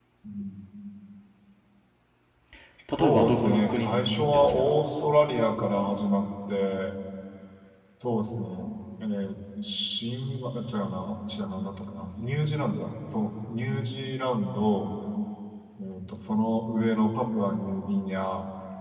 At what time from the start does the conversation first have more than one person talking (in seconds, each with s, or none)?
3.0 s